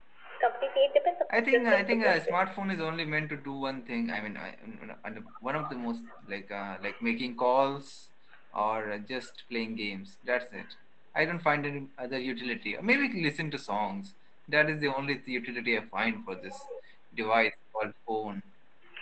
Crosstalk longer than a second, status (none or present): present